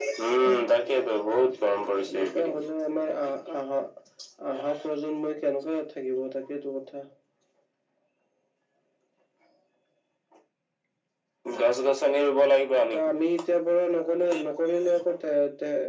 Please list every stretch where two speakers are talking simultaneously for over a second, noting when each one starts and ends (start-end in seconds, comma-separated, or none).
2.1-3.4